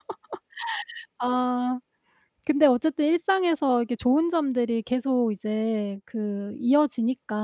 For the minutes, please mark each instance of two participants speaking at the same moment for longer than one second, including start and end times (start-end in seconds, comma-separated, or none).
none